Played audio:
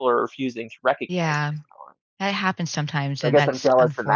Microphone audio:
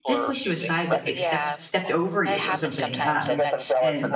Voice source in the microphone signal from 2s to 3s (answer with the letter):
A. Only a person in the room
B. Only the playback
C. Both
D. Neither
C